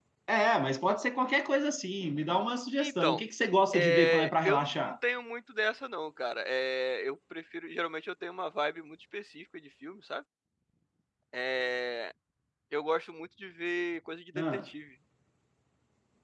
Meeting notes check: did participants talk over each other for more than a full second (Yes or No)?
Yes